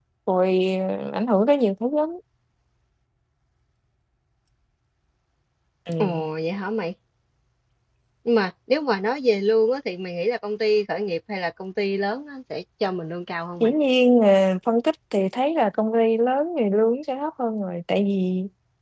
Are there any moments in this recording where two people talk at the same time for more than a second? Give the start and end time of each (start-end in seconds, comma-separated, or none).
none